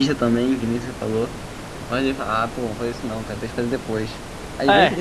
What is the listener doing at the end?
listening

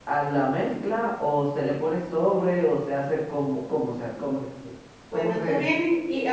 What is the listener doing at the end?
taking over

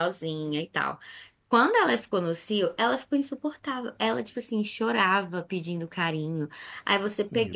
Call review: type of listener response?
listening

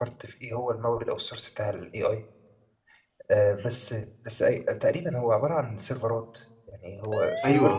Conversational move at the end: taking over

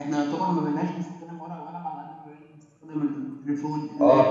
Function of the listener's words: taking over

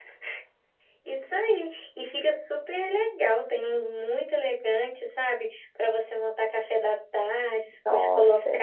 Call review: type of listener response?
listening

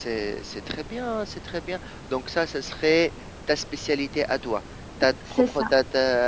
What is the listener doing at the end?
listening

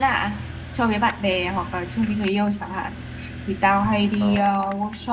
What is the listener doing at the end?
listening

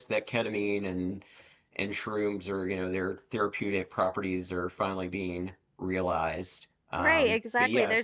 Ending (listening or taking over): taking over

